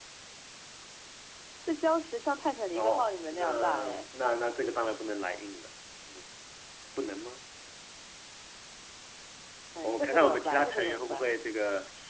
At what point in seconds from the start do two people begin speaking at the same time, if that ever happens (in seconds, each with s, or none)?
2.8 s